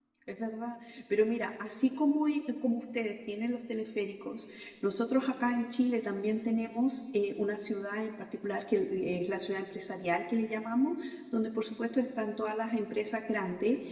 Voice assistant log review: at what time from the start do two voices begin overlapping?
none

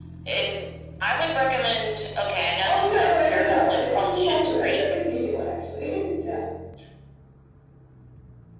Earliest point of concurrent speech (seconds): 3 s

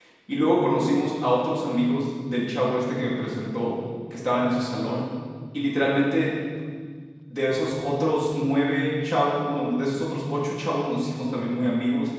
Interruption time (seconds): none

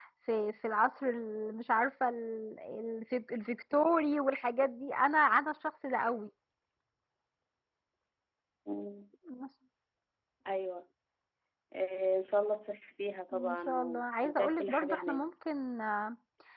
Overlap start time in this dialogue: 13 s

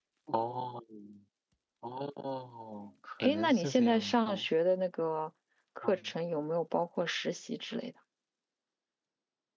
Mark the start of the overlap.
3 s

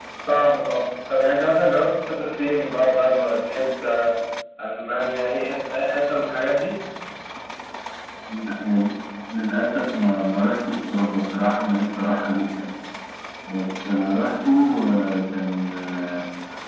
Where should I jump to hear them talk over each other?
none

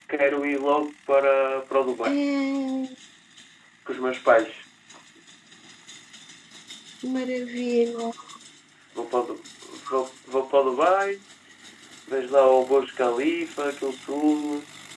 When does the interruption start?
none

